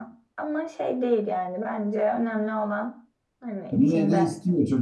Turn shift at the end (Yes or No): Yes